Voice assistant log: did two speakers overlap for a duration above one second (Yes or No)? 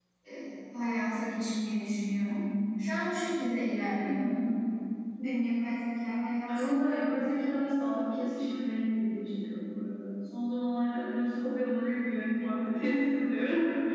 No